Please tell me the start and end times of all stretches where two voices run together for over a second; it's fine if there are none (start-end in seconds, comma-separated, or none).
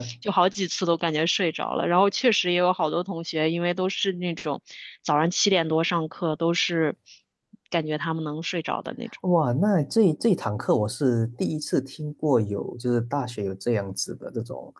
none